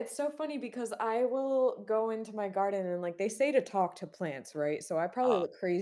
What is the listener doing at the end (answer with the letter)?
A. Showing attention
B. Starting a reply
A